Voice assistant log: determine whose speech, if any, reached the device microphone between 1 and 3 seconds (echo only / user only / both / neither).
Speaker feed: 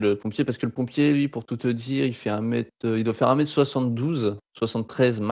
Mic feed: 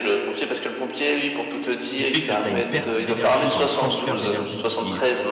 both